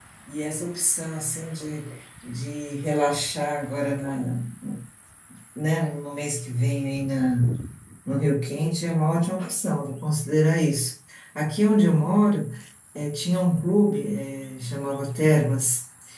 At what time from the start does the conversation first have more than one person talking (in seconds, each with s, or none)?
none